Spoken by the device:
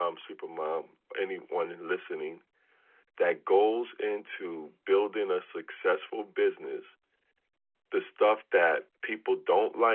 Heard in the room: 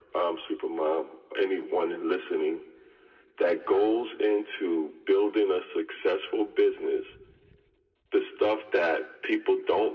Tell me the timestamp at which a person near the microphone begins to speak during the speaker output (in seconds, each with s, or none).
none